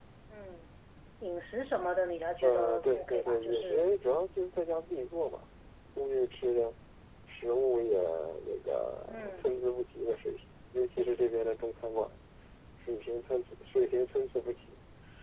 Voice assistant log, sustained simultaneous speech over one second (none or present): present